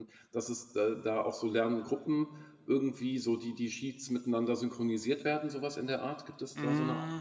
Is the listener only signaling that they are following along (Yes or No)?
No